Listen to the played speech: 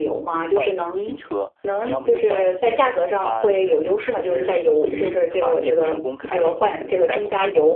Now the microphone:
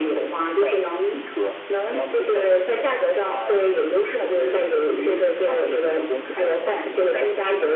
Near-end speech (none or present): none